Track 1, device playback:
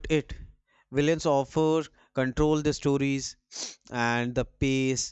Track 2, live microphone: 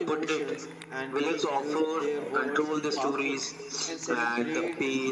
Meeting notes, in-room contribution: present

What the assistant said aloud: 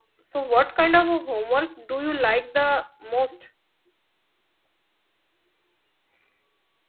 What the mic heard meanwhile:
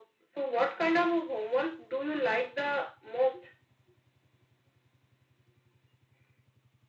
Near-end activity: none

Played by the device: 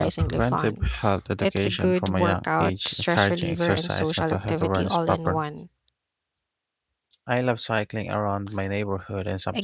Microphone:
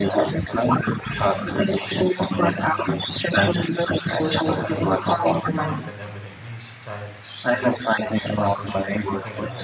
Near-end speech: present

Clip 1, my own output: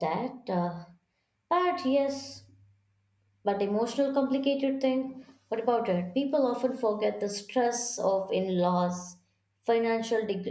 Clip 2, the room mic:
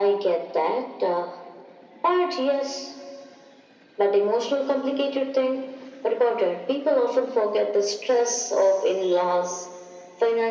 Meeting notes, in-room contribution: none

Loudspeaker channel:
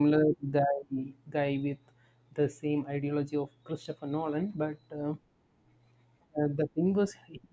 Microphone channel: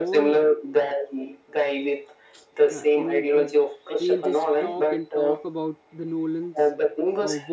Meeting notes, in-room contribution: present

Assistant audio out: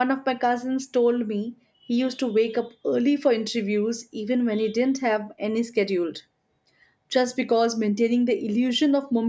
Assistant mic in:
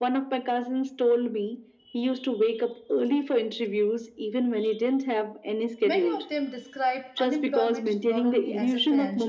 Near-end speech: present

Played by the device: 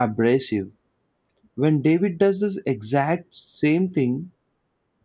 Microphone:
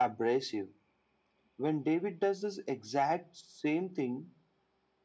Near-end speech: none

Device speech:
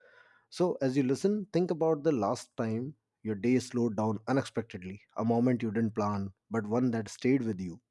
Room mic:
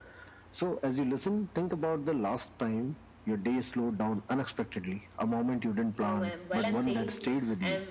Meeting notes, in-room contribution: present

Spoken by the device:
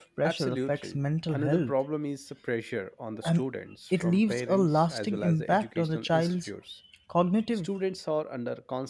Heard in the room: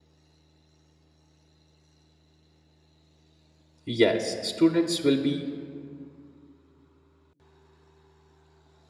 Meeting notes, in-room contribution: present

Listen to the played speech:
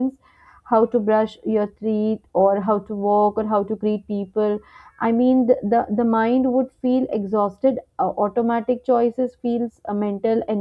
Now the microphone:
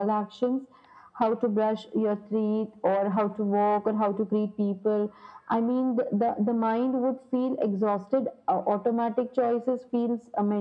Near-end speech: none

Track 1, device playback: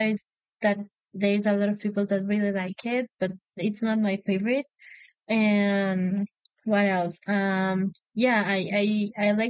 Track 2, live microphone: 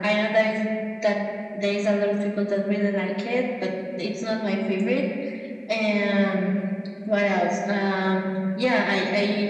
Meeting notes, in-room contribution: none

